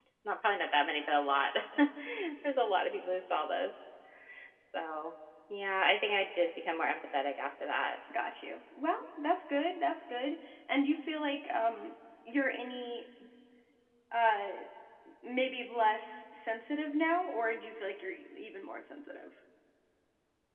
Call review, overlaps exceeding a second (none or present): none